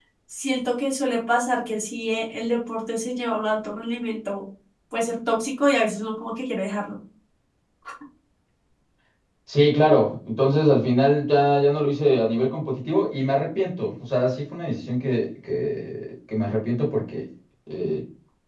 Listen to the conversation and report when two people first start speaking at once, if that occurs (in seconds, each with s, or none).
none